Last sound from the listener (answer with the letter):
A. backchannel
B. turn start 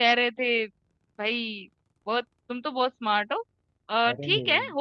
A